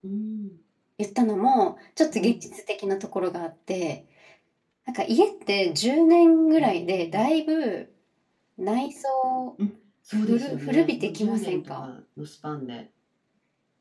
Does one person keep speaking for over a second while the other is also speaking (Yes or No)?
Yes